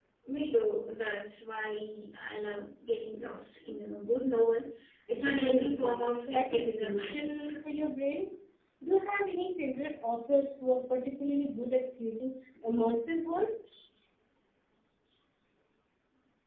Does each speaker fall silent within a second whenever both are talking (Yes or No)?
No